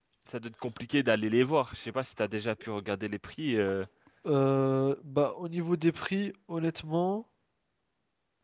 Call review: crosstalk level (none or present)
none